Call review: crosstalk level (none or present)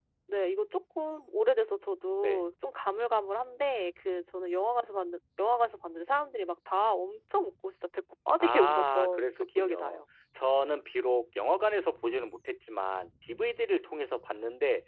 present